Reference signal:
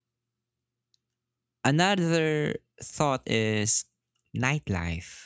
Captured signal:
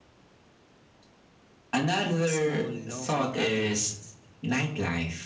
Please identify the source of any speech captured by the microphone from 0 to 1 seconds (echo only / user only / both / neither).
neither